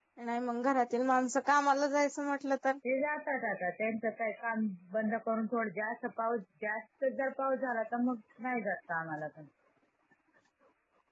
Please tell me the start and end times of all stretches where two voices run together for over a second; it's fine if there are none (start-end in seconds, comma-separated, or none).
none